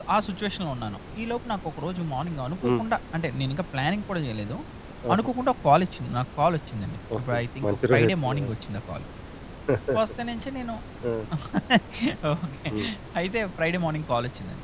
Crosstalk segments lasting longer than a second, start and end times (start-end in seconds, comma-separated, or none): 7.2-8.5